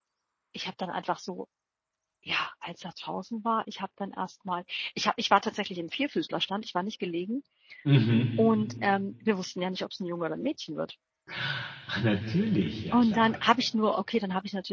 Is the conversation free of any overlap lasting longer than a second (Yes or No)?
Yes